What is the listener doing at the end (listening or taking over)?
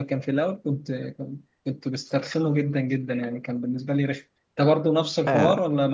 taking over